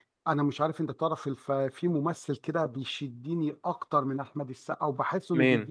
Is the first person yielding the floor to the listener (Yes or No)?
No